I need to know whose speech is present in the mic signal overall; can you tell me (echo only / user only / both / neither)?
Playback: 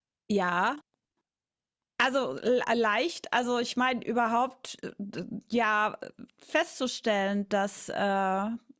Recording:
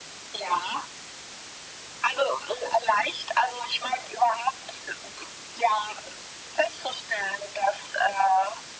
echo only